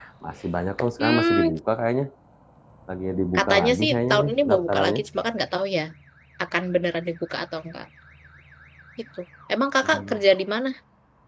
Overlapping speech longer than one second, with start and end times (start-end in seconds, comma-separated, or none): 3.4-5.0